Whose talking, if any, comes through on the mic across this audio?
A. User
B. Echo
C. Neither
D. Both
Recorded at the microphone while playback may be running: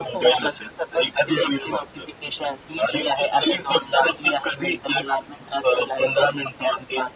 B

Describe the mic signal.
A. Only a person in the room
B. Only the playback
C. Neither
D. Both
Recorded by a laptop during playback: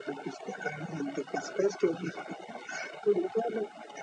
B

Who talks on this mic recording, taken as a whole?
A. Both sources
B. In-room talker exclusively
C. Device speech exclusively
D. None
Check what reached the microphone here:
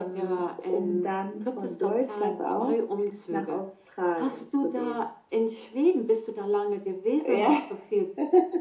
C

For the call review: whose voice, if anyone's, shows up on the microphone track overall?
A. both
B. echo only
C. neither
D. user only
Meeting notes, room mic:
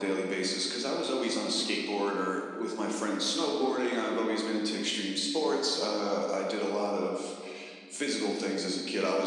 B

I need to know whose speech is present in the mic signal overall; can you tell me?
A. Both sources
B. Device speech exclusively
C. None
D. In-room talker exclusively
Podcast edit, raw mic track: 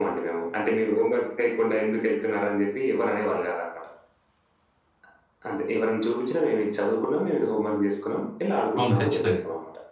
A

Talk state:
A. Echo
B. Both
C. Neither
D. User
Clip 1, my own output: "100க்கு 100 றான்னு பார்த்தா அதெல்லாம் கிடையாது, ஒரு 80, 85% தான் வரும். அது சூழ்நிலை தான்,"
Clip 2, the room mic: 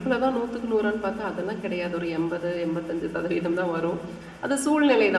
A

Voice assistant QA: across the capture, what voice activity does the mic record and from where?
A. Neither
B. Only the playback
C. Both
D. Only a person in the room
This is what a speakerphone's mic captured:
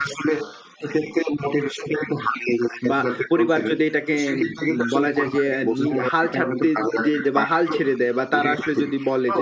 C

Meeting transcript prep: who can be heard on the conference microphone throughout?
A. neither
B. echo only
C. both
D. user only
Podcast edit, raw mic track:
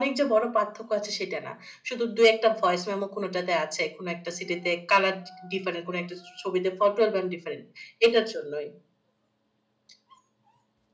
B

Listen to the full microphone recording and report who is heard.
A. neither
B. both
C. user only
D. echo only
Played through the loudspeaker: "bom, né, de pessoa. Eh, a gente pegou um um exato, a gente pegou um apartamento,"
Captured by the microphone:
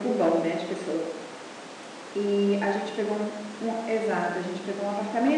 D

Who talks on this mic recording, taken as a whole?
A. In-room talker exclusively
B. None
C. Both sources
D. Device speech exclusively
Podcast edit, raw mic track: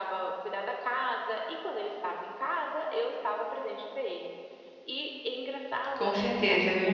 C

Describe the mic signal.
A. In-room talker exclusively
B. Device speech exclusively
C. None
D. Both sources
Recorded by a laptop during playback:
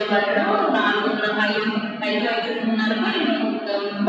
B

